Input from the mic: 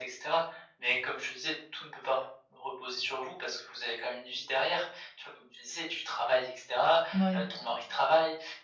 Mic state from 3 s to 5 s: echo only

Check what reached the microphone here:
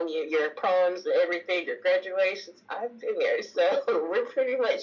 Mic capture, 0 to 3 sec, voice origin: echo only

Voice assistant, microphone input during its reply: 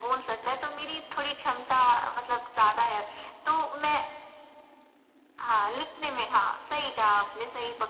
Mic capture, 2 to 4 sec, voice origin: echo only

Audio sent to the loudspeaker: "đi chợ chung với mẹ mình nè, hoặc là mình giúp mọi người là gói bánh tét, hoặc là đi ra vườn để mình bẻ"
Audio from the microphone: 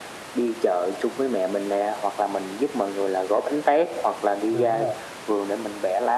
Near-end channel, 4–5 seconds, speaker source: both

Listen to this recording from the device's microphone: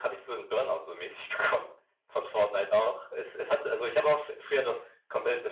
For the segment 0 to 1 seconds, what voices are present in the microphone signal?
echo only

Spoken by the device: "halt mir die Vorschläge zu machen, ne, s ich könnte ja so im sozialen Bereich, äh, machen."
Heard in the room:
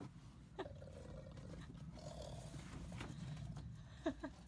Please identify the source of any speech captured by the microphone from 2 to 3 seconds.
neither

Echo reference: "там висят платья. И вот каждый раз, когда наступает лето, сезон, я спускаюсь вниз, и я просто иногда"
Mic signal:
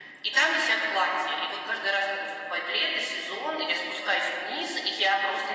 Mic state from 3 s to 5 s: echo only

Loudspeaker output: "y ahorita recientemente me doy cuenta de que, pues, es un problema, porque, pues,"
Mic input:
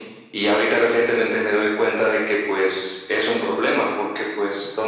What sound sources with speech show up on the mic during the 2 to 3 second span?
echo only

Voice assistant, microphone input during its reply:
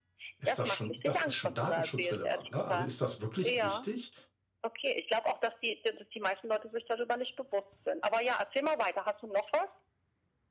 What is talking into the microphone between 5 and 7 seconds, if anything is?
echo only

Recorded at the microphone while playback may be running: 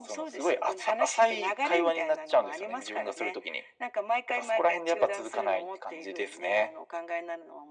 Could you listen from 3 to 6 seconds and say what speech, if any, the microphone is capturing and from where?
echo only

